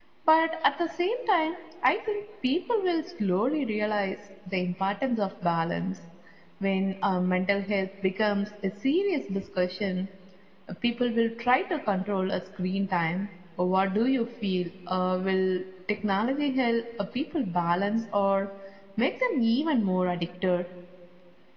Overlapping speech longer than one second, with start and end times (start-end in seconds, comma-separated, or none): none